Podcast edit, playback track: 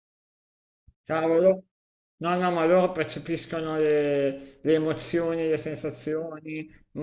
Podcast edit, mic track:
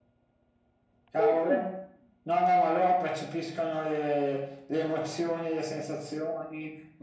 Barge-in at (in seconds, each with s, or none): 1.2 s